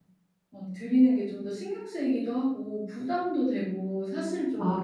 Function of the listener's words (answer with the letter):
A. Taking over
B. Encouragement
A